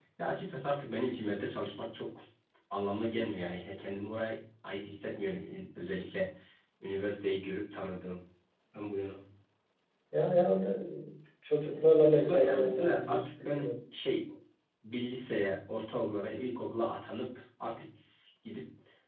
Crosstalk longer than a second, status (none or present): present